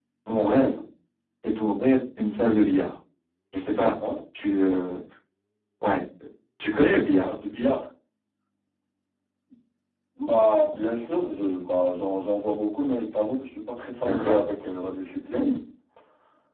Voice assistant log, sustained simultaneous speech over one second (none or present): none